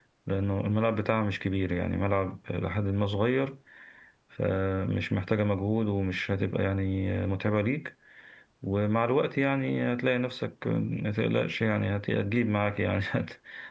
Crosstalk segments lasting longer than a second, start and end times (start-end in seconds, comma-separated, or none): none